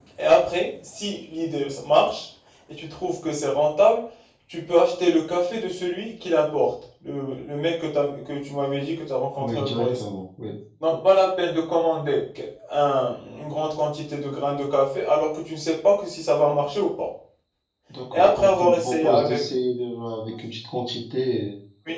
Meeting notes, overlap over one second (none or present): present